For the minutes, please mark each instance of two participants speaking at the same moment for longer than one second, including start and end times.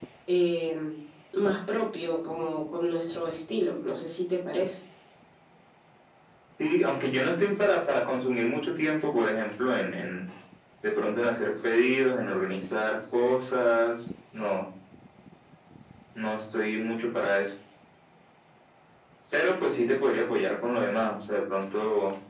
none

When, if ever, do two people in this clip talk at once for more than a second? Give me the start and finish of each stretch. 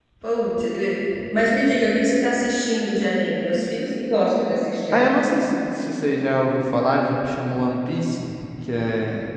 none

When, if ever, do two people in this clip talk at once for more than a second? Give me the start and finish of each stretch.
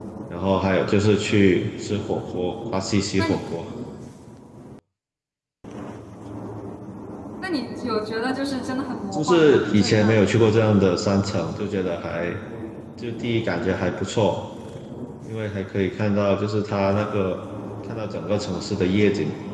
9.1-10.3

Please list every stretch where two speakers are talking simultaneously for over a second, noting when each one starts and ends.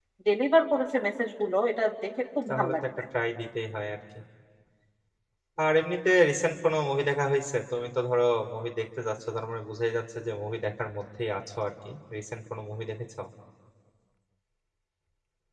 none

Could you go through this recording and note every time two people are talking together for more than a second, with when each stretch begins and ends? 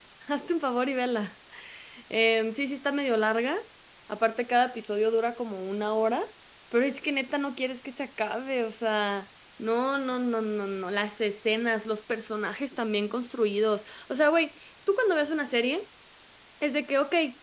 none

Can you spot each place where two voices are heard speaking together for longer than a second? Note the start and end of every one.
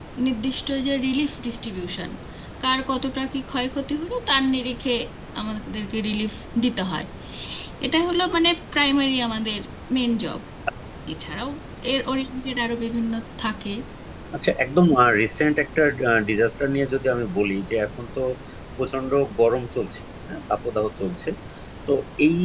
none

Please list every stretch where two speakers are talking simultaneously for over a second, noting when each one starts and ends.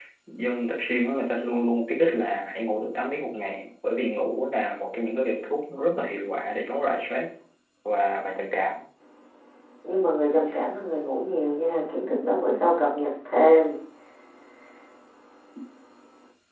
none

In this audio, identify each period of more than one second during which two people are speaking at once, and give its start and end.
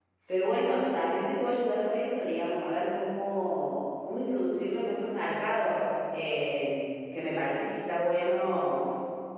none

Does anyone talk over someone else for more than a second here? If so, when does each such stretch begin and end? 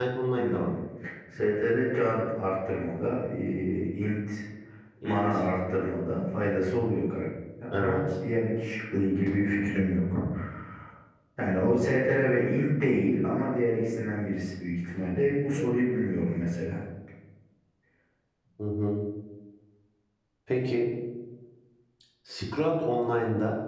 none

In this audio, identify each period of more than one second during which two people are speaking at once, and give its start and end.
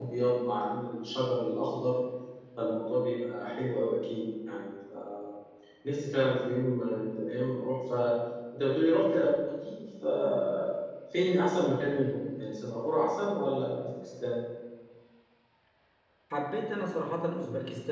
none

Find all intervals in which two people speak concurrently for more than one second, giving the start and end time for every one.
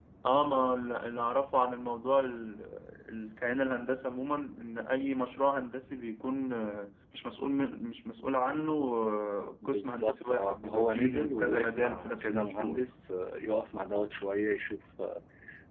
9.7-12.8

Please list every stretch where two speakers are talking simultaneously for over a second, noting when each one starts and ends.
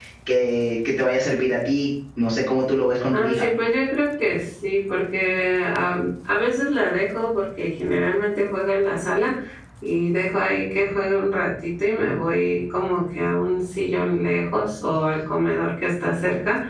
none

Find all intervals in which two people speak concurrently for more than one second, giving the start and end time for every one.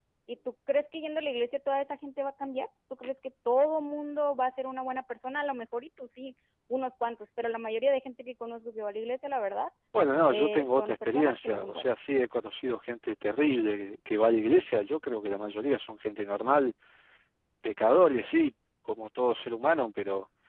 10.3-11.9

